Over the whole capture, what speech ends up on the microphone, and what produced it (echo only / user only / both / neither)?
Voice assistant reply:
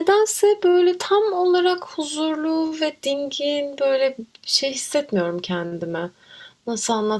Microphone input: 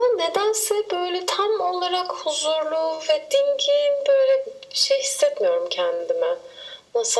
echo only